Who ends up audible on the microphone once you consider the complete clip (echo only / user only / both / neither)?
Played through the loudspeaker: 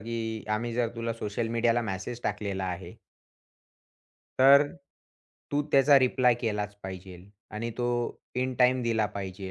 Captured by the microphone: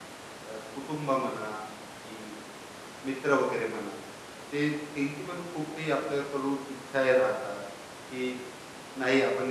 user only